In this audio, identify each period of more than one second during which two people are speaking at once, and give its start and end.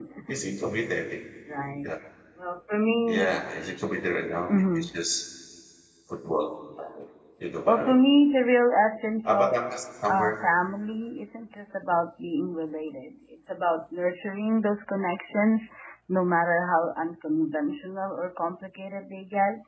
none

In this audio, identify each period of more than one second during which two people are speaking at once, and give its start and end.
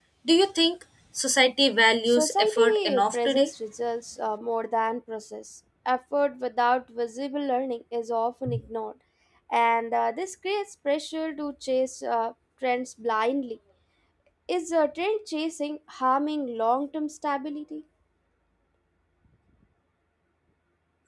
2.1-3.5

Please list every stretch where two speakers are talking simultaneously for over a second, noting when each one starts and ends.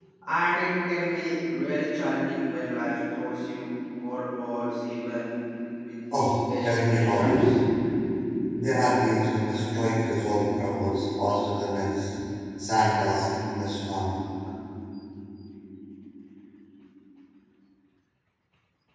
6.1-7.4

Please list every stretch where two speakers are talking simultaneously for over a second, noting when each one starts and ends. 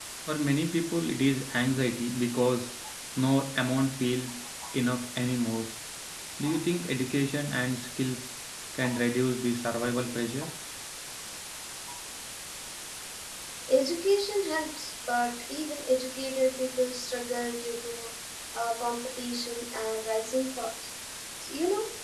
none

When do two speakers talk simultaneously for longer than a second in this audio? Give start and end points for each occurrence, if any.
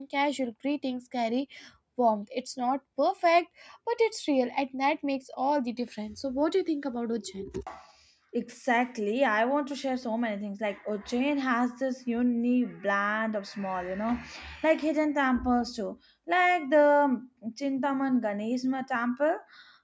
none

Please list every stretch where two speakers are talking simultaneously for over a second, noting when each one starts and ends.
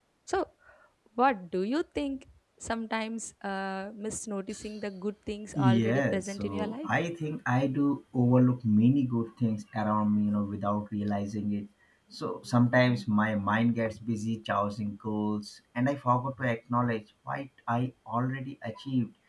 5.5-6.9

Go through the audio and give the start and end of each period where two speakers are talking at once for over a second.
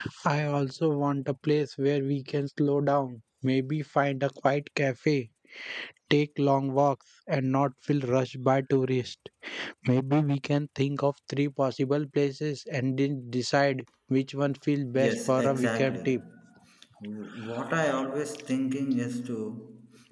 15.0-16.2

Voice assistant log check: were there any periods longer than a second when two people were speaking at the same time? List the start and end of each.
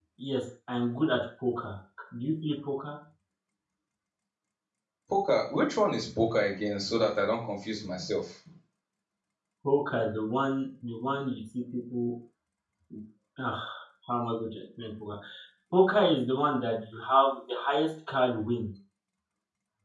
none

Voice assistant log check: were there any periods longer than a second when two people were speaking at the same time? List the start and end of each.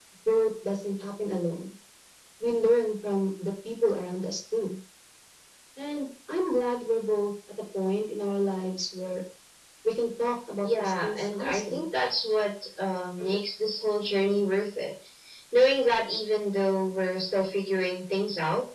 10.6-11.8

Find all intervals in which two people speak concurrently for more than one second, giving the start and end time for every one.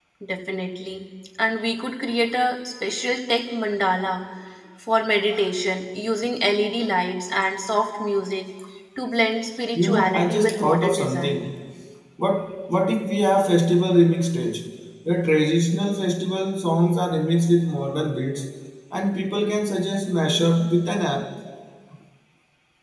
9.8-11.4

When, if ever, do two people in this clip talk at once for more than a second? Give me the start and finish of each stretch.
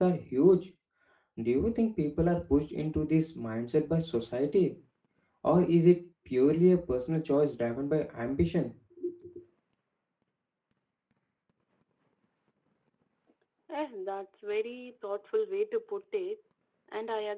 none

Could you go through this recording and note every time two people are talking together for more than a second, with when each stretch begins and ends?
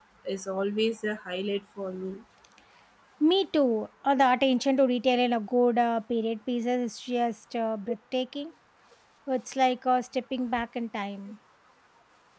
none

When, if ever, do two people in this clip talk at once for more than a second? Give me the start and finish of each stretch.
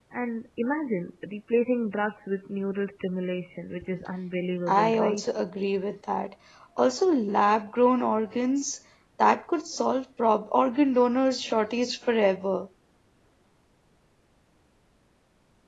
none

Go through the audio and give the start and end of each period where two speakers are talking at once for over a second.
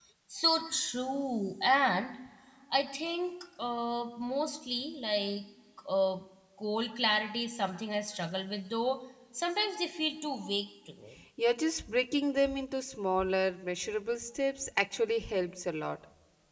none

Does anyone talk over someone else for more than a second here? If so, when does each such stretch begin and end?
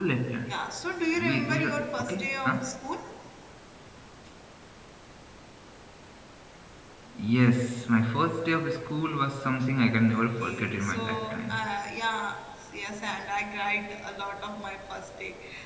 1.1-2.6, 10.2-11.7

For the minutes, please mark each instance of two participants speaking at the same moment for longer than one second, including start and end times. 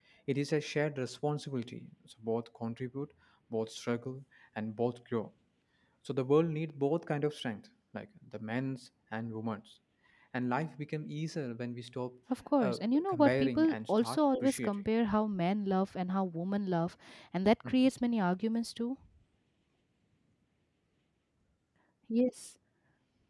12.6-14.8

